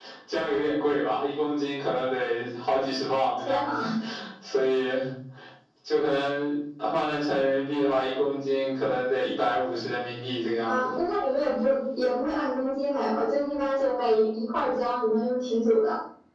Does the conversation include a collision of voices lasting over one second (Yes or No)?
No